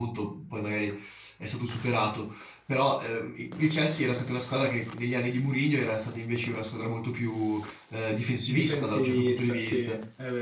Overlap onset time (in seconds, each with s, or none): 8.5 s